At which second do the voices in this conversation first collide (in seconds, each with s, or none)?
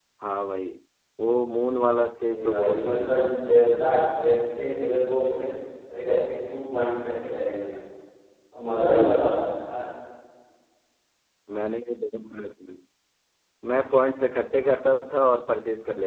2.3 s